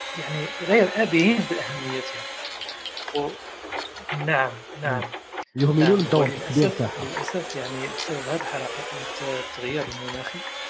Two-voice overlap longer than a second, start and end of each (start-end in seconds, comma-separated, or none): 5.8-7.1